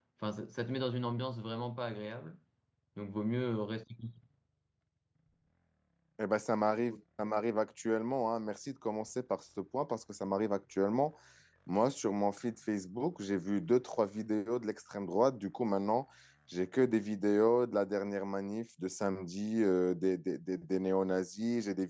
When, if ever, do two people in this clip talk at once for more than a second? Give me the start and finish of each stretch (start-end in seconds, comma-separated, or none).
none